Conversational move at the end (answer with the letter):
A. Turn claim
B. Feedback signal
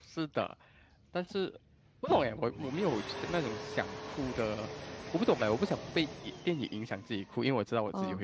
A